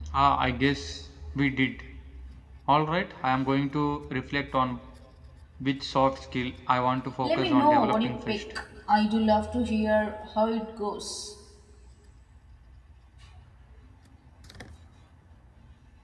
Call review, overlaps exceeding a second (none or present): present